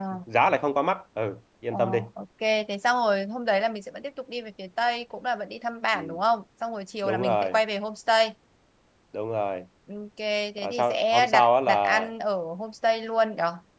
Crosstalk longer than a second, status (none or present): present